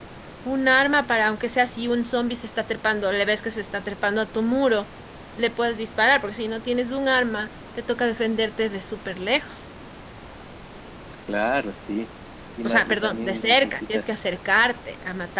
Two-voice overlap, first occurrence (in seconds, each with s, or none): 12.6 s